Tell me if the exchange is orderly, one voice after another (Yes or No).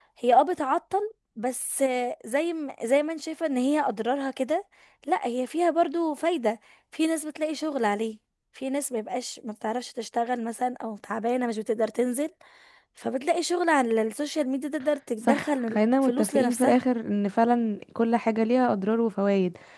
No